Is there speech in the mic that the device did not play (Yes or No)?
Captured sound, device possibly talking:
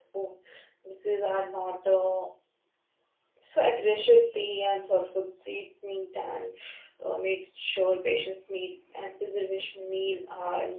Yes